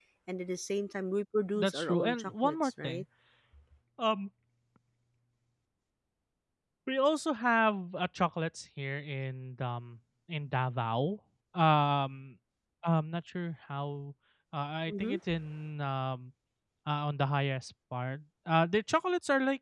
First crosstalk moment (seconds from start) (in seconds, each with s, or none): 1.6 s